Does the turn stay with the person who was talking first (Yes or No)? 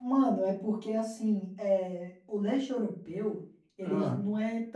Yes